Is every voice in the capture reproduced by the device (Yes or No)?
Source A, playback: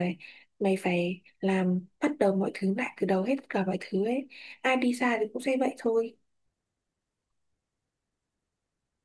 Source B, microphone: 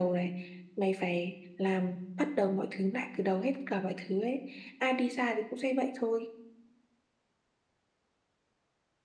Yes